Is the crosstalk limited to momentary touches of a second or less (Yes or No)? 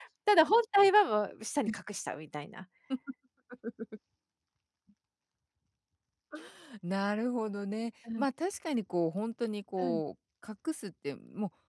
Yes